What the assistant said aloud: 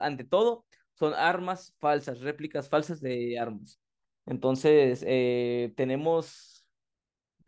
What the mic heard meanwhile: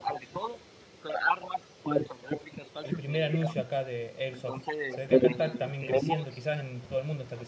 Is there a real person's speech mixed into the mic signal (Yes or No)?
Yes